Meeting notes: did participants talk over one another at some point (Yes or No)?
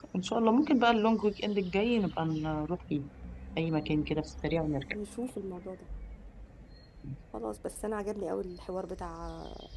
No